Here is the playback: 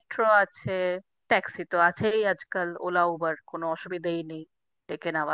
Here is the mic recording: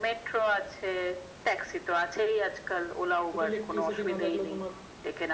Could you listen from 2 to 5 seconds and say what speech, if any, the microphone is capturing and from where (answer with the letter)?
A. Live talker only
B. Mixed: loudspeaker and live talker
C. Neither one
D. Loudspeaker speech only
B